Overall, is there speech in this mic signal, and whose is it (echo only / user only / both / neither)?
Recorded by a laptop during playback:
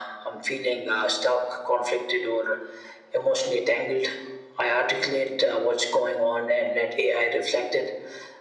echo only